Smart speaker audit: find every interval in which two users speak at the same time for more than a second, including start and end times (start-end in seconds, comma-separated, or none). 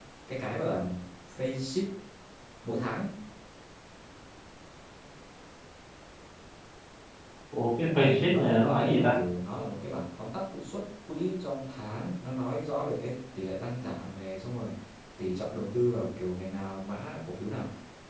7.8-9.2